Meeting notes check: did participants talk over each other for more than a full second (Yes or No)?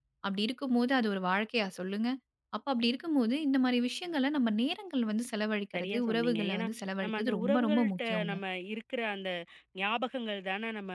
Yes